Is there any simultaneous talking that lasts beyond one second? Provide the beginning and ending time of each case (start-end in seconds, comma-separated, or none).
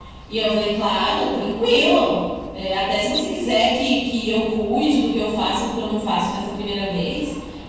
none